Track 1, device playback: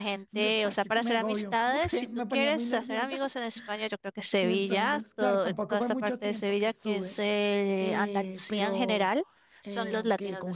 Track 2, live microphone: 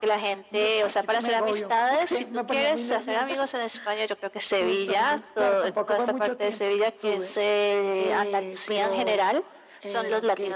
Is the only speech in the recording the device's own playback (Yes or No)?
Yes